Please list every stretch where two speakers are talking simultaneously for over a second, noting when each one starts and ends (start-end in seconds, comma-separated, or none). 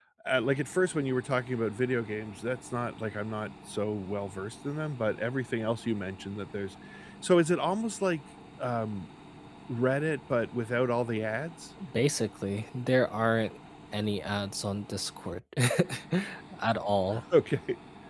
none